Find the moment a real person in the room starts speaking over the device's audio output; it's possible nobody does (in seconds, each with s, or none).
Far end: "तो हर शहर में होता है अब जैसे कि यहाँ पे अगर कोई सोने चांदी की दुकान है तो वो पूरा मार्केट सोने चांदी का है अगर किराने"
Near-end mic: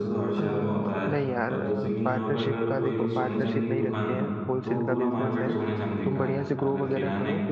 0.4 s